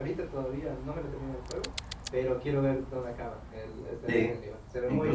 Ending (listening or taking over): taking over